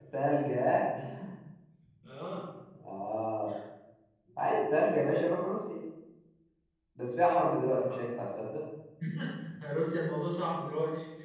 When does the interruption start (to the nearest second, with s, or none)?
none